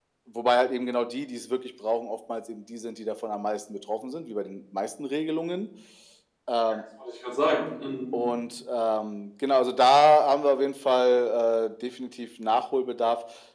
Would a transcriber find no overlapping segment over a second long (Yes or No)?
Yes